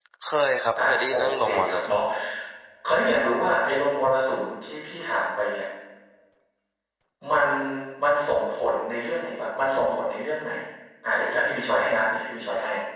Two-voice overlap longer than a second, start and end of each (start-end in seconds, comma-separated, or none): 0.8-2.0